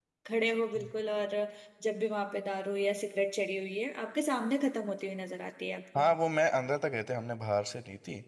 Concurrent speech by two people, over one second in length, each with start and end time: none

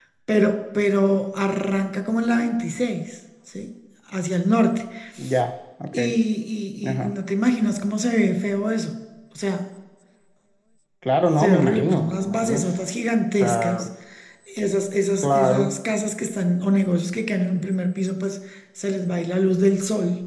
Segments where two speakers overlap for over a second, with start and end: 11.4-12.9

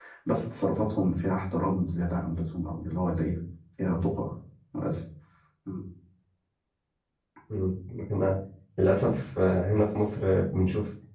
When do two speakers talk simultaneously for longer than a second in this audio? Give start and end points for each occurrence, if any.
none

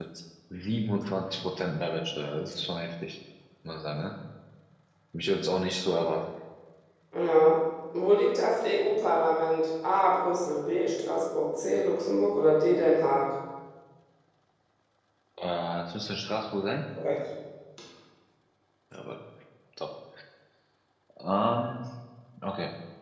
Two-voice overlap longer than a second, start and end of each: none

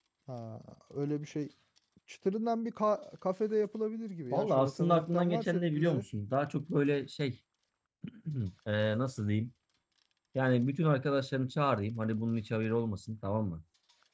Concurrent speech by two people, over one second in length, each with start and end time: 4.3-6.0

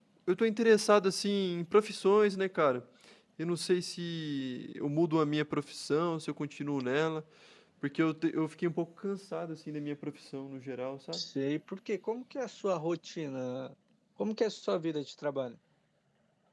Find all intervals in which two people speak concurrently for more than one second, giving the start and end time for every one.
none

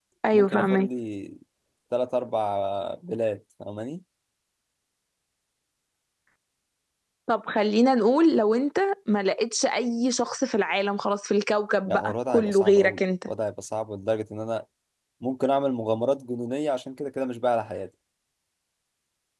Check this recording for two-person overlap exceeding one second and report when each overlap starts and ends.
11.8-13.3

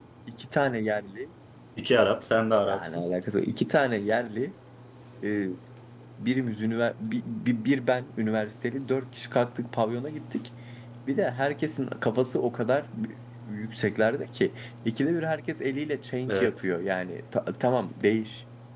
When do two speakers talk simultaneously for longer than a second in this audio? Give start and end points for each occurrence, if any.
none

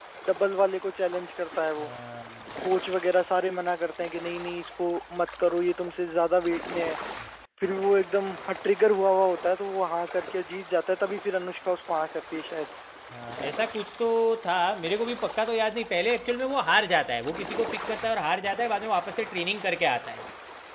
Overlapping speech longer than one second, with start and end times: none

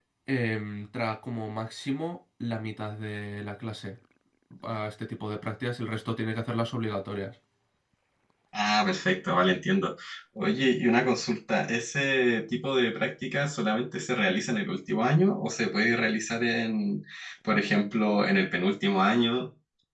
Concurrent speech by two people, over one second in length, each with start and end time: none

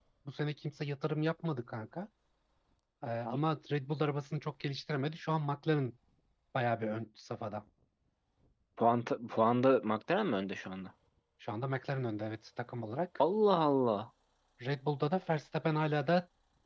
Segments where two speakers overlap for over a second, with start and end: none

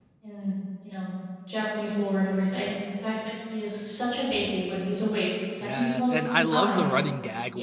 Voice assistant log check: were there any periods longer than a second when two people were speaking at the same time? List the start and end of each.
5.6-7.0

